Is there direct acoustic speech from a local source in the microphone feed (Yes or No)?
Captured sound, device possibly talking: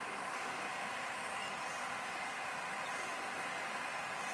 No